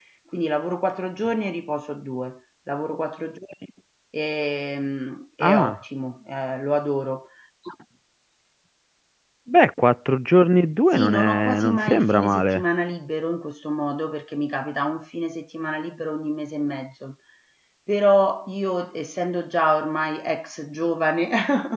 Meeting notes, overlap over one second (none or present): present